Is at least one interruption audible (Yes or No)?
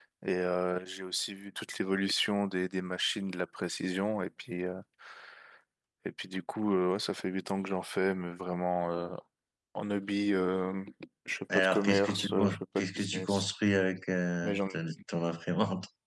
Yes